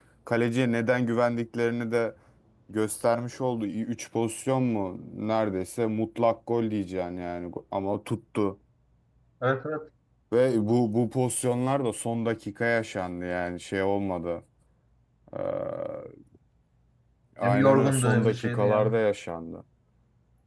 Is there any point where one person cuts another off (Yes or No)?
Yes